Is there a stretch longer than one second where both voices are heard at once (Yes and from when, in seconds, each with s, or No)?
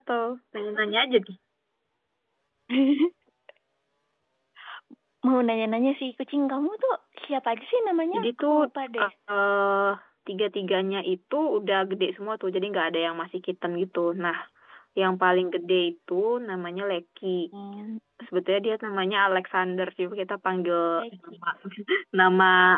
No